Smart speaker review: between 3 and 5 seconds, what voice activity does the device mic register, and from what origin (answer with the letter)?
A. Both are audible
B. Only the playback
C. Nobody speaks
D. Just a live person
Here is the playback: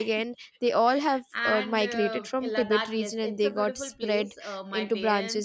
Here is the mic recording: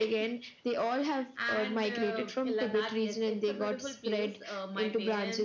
B